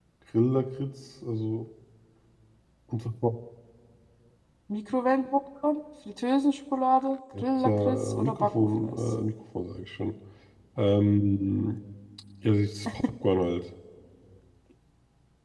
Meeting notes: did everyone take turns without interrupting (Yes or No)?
No